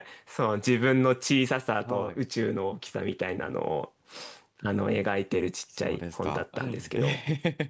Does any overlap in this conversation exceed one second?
Yes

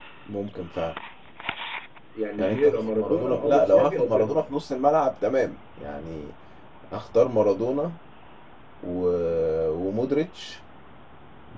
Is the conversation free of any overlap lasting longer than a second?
No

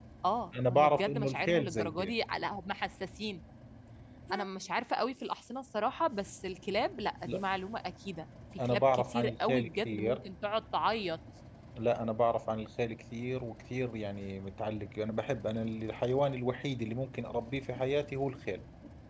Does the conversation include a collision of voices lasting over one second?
Yes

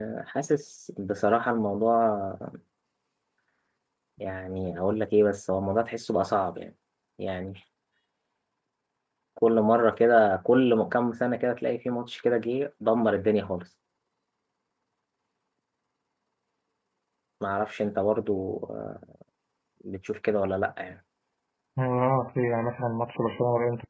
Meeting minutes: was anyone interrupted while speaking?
No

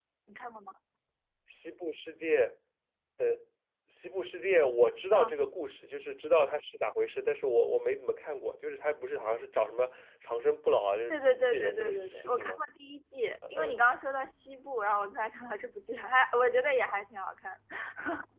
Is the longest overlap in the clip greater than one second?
Yes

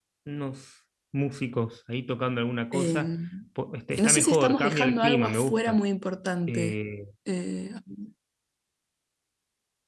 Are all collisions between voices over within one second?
No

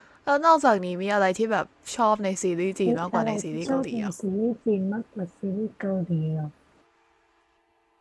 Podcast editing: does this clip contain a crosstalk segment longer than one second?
Yes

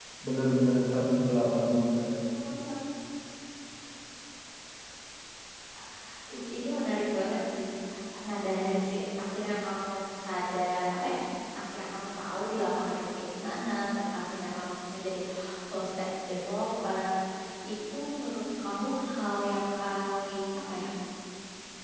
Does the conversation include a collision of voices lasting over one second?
No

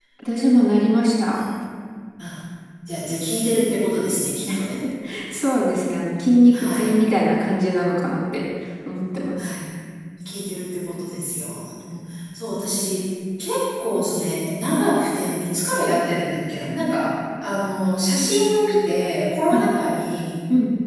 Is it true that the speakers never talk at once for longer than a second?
Yes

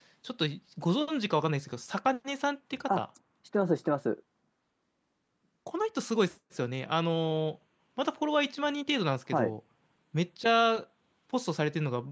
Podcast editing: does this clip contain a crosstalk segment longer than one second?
No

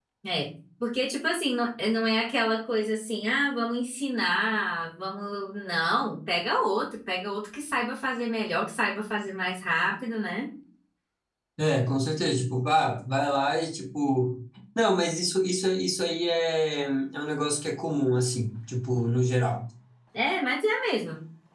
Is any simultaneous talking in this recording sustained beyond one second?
No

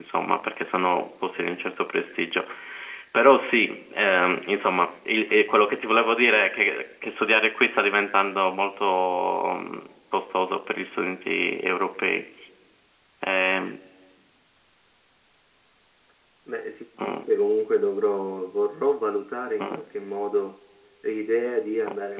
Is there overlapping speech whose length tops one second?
No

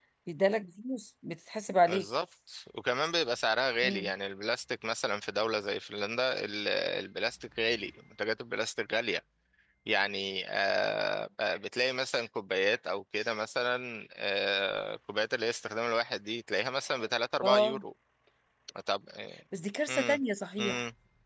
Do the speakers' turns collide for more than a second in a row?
No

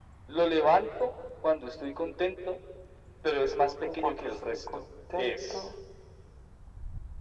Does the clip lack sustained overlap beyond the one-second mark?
No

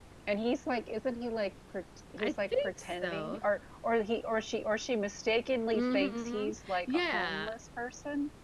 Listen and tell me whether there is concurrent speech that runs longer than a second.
Yes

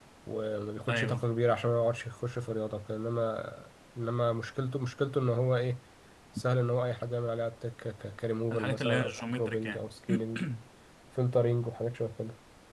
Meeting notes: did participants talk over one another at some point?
Yes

